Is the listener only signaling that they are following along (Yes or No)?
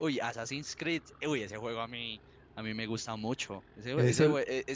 Yes